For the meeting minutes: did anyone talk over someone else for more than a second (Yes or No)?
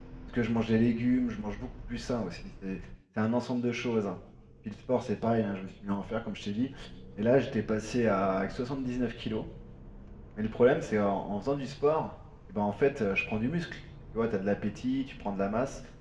No